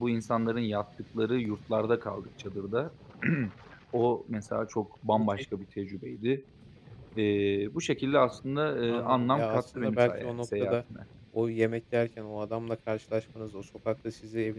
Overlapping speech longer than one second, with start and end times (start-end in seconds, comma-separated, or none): 8.9-10.8